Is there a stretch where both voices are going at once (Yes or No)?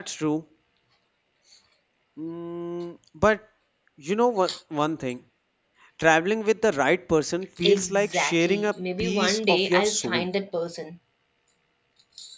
Yes